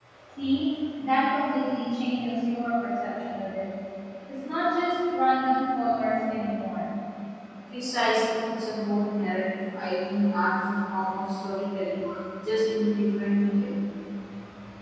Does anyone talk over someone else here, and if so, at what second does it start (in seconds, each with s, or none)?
none